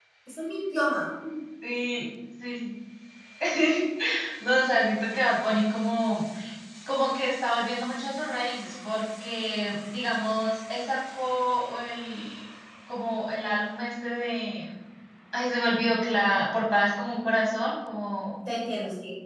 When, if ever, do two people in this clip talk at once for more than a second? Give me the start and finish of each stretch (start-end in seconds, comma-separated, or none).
none